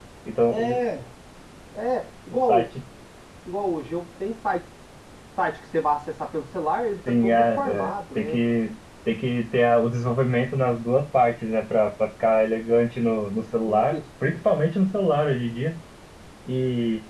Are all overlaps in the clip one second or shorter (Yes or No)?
No